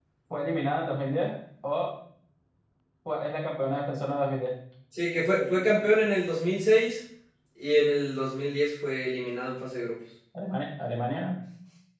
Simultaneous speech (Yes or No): No